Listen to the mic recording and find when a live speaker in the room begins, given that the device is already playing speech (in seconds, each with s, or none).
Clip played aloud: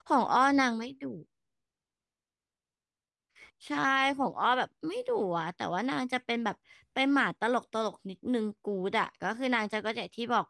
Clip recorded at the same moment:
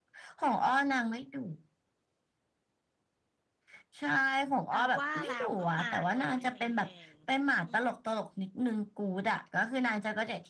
4.7 s